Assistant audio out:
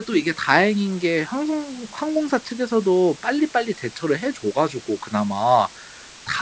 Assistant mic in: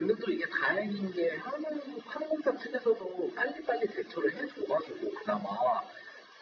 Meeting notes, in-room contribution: none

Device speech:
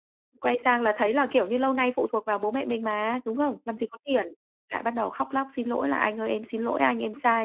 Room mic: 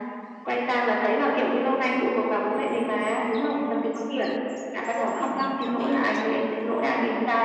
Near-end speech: present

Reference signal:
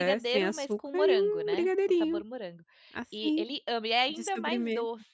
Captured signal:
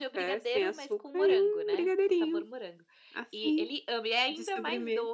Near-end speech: none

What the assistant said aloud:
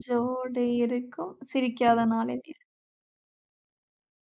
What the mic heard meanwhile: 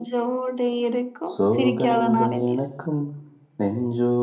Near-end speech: present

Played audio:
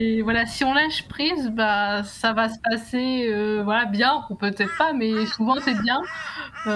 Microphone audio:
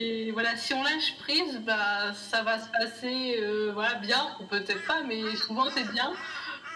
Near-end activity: none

